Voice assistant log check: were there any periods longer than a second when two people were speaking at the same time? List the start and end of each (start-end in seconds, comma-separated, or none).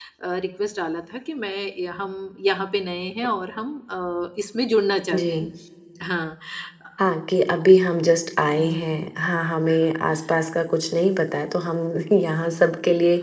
none